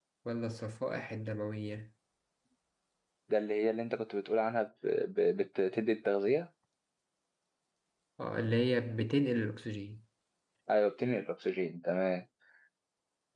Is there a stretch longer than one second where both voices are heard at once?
No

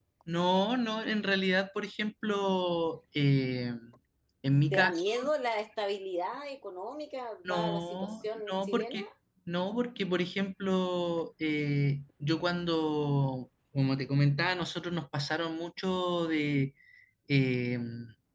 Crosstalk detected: Yes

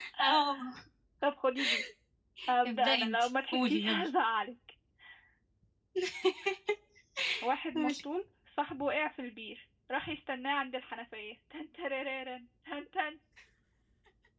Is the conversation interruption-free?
No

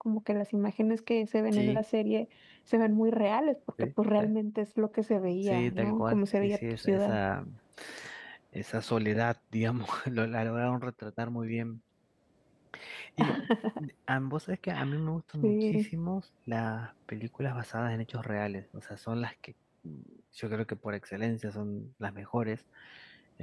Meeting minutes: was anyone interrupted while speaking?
Yes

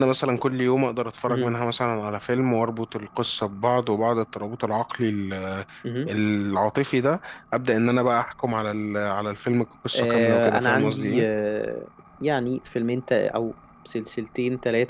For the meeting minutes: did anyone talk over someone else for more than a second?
Yes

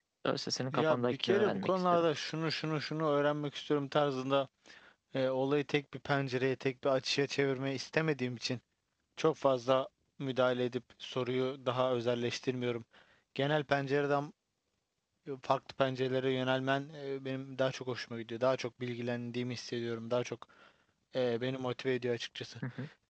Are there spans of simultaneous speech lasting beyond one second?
Yes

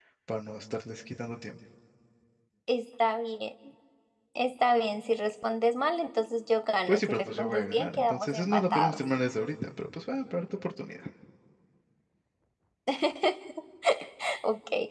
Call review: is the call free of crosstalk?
No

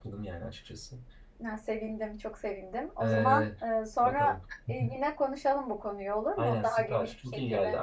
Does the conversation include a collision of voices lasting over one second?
Yes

